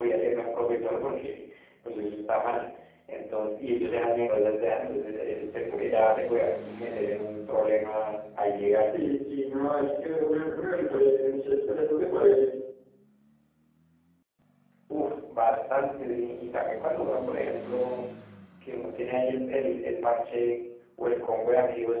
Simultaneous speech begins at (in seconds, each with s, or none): none